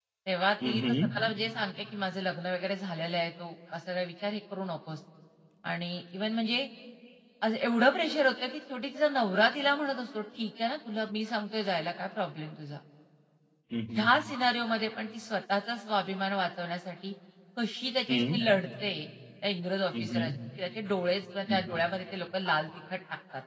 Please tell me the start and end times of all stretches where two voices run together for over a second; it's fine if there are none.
none

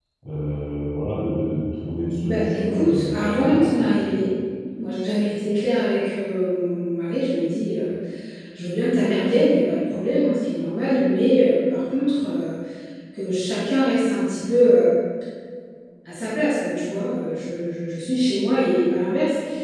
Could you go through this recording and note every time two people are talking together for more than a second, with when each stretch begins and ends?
2.2-3.7

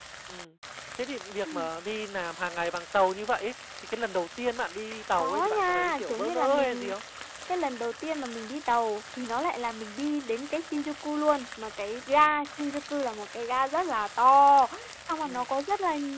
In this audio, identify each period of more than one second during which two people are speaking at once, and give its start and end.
5.2-6.9

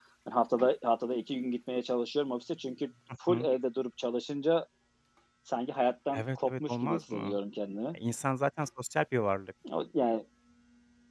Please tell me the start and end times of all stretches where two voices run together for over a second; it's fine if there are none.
6.1-7.4

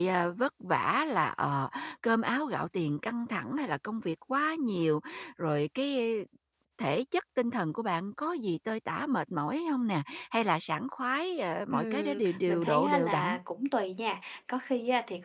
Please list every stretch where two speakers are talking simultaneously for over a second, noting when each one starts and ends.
11.7-13.4

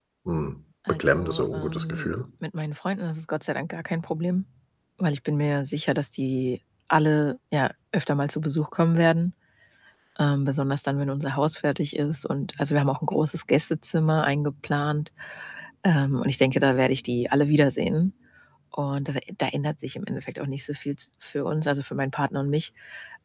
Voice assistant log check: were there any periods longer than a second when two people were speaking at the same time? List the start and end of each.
0.9-2.1

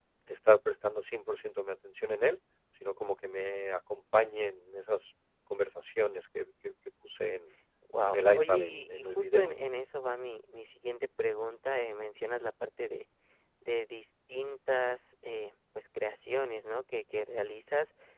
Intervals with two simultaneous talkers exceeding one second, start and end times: 8.1-9.5

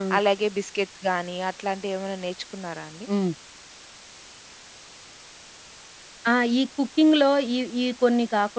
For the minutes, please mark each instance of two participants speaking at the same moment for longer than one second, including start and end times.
none

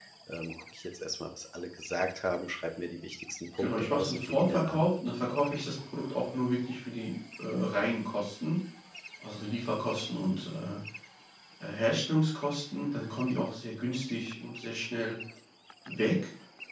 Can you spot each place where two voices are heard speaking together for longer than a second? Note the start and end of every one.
3.6-4.9

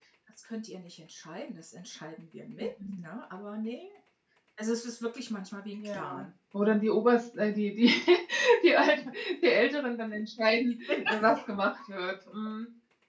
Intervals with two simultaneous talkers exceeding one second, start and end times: none

